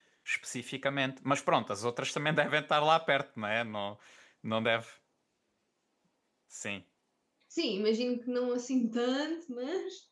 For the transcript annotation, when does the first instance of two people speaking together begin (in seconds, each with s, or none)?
none